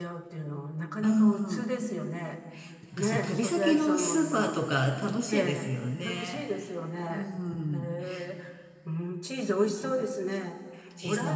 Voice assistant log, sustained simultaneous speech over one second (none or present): present